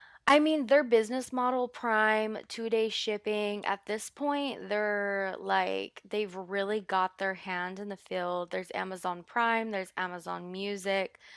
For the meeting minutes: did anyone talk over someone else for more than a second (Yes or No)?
No